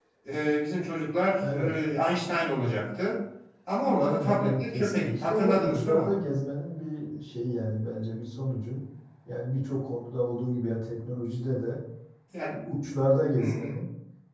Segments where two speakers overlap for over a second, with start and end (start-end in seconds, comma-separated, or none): 3.9-6.2